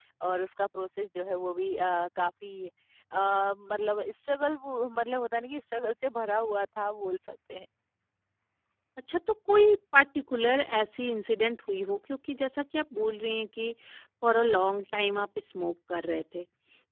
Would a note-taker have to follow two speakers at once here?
No

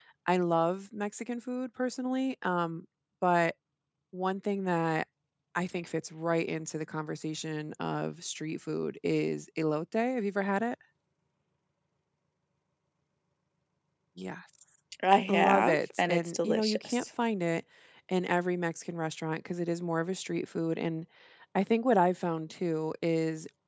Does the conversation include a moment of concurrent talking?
Yes, from 15.3 s

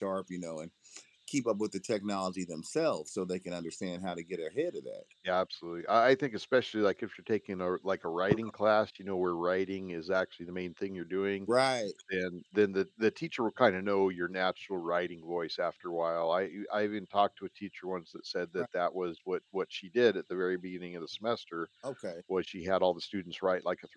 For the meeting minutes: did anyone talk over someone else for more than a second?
No

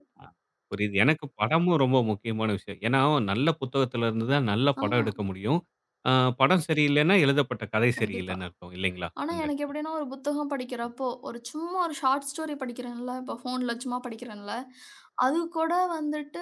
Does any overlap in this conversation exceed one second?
No

